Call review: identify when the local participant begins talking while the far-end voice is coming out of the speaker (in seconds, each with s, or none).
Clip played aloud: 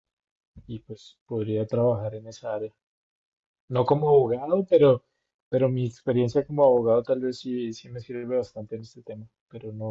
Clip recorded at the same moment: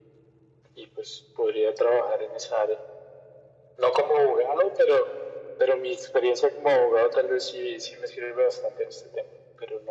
none